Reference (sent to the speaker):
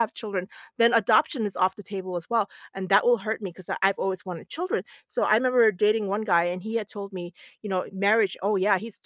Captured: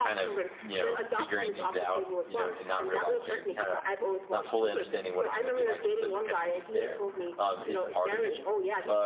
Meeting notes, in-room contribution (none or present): present